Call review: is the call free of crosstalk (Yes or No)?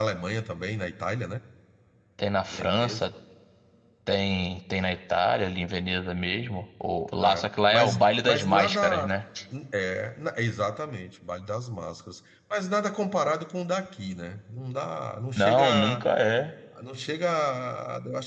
No